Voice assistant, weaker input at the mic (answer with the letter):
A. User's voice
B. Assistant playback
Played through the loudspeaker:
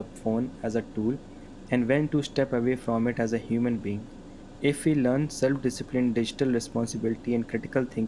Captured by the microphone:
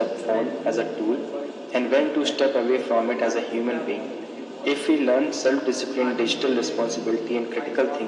A